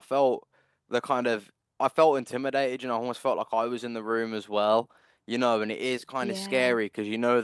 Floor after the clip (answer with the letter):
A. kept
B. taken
A